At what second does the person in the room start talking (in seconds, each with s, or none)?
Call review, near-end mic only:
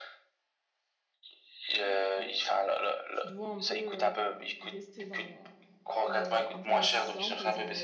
1.8 s